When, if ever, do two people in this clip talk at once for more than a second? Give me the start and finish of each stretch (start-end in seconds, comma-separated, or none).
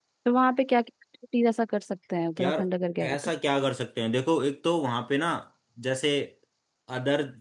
none